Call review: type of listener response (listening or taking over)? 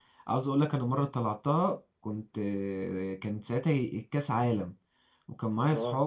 listening